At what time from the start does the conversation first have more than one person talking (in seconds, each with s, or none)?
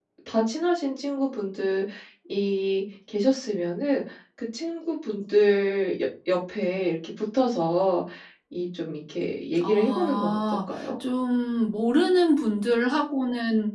9.6 s